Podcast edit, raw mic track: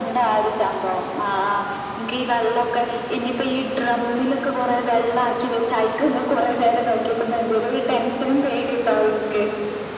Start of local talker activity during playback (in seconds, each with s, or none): none